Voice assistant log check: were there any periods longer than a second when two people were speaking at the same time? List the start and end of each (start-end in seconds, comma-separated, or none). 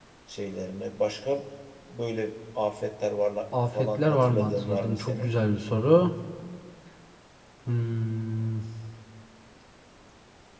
3.8-5.3